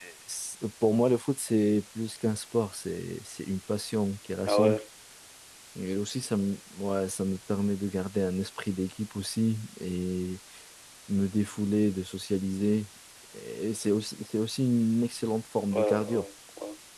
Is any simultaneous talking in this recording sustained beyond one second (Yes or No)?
No